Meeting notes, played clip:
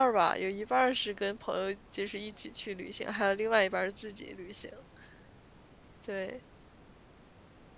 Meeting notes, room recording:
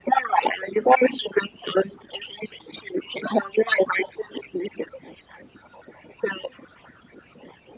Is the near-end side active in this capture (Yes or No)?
No